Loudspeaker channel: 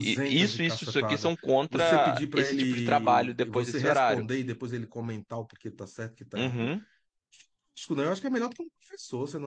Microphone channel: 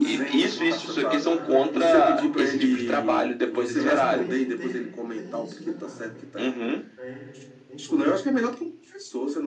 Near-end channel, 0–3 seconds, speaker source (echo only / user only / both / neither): both